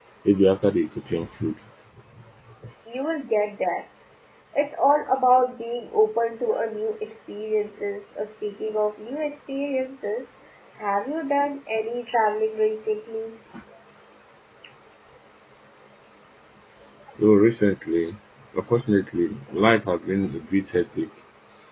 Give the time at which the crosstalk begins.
none

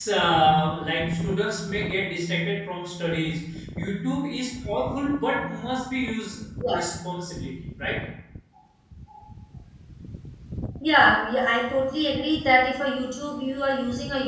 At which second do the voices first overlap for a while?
none

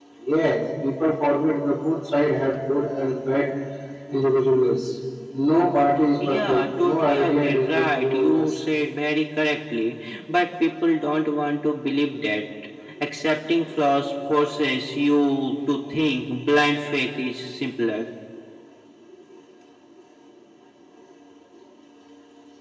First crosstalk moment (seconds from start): 6.2 s

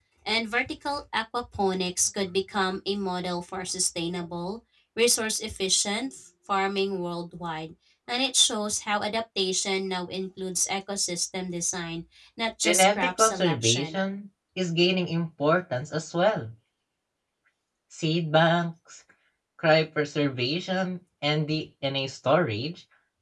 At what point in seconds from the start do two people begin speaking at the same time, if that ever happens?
12.6 s

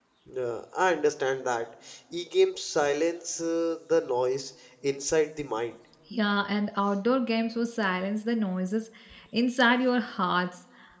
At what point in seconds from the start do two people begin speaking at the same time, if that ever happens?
none

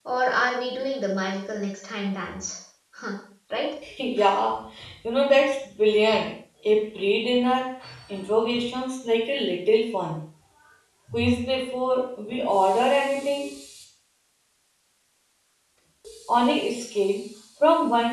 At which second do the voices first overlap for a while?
none

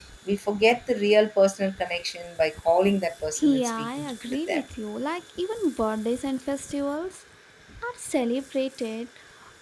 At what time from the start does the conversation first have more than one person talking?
3.4 s

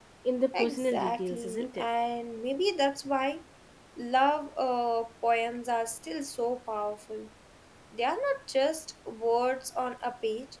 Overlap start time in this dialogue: 0.5 s

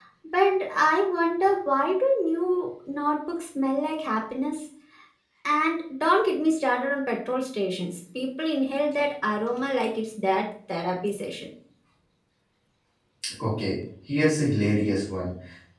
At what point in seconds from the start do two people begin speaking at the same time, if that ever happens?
none

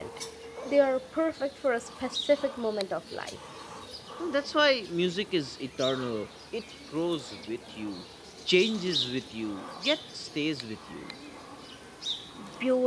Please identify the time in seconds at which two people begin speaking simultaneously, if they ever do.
none

